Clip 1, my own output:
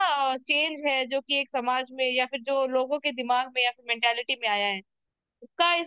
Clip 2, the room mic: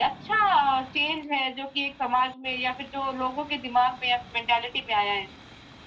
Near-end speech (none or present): none